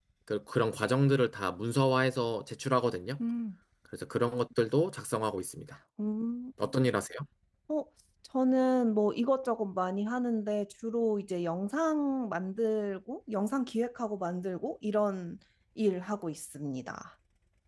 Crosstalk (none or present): none